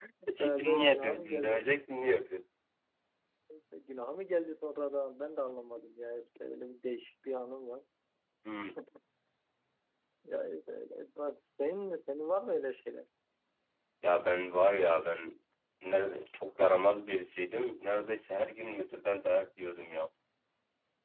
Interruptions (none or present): present